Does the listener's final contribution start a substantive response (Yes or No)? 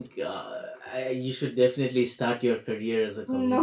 No